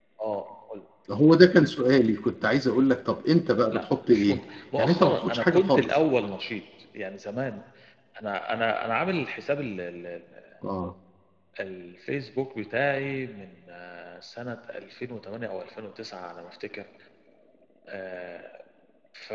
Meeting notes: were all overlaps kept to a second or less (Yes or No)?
No